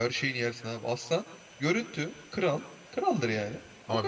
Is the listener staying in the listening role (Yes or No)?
No